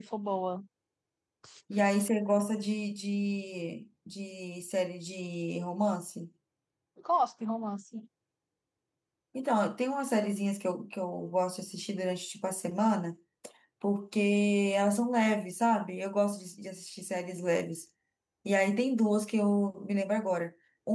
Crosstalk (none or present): none